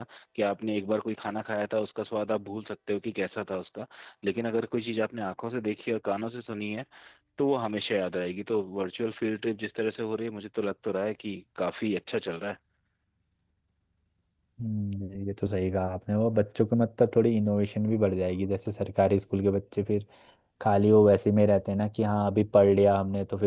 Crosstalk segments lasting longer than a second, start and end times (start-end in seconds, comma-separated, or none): none